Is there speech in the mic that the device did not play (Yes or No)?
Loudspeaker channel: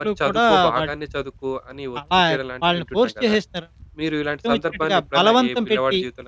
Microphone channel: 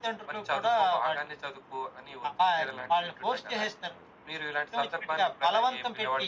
No